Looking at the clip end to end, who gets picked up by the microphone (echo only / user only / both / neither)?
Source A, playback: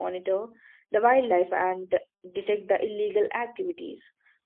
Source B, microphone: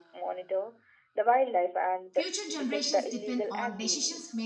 both